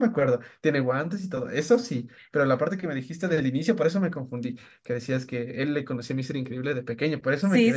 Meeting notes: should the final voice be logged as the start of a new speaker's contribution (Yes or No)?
Yes